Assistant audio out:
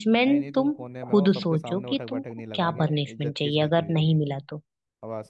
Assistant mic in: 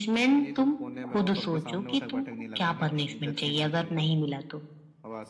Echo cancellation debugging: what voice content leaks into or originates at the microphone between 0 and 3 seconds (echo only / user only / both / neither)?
echo only